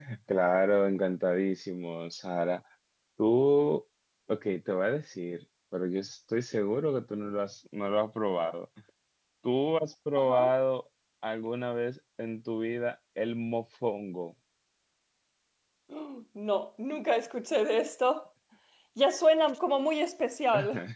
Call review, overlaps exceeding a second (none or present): none